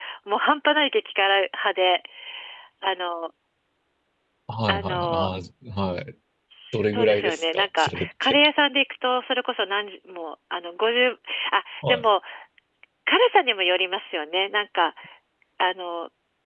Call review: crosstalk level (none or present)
present